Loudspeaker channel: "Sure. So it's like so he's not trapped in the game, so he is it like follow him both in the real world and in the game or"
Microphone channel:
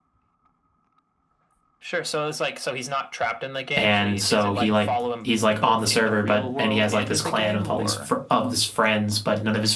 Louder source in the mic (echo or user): user